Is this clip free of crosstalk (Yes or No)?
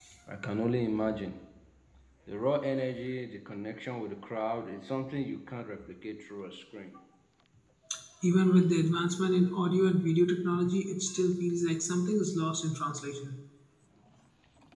Yes